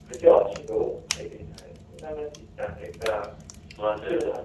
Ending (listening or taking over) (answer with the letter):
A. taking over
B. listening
A